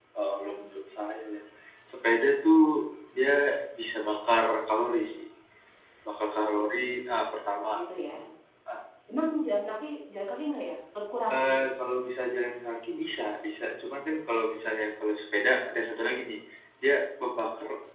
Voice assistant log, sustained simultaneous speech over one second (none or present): none